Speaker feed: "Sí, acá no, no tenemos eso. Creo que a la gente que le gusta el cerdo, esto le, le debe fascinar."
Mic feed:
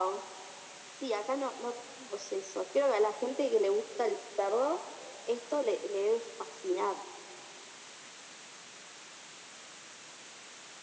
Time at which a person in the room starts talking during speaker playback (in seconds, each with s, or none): none